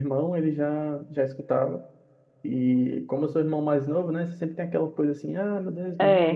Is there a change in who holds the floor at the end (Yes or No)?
No